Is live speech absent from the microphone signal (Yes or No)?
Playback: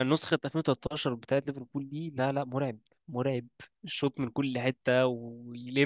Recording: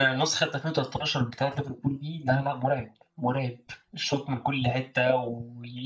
Yes